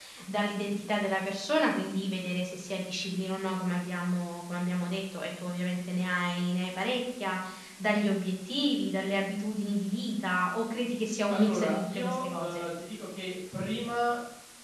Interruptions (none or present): present